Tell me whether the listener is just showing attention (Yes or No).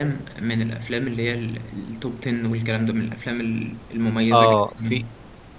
No